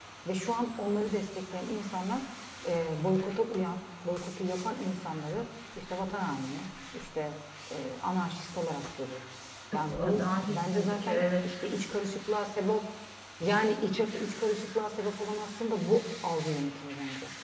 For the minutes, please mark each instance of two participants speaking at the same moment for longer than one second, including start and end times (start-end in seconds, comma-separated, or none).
9.7-11.5